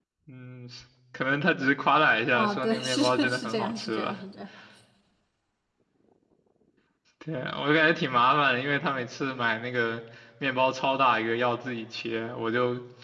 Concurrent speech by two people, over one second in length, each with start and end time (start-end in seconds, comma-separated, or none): 2.3-4.1